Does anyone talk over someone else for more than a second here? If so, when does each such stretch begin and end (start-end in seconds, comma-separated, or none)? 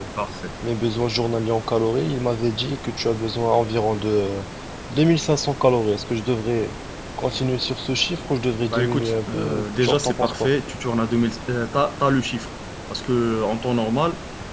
8.7-10.5